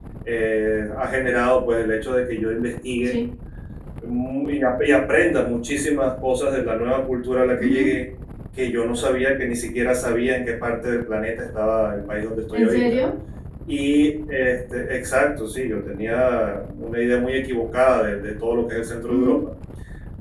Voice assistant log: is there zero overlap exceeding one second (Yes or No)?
Yes